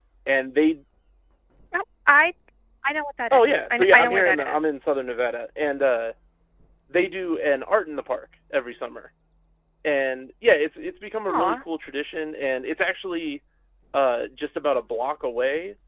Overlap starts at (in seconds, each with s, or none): 3.3 s